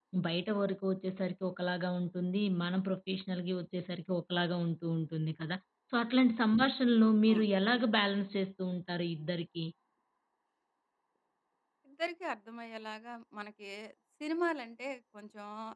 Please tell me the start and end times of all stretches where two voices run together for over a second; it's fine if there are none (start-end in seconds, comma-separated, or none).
none